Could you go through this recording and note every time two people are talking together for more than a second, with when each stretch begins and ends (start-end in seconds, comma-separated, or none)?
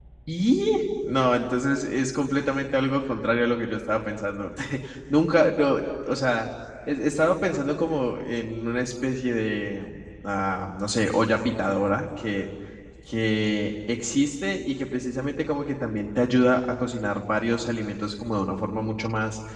none